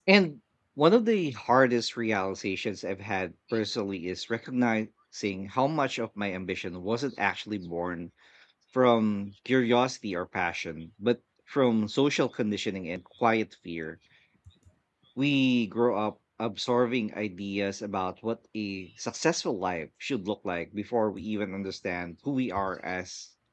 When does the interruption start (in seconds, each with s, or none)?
none